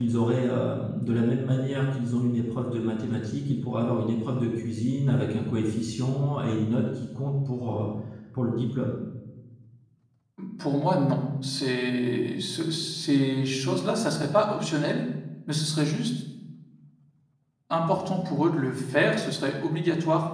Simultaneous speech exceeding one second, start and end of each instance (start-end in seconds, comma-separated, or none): none